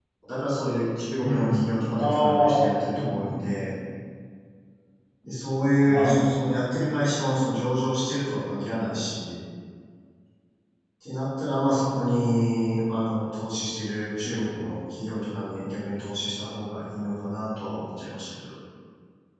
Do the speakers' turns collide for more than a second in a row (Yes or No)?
Yes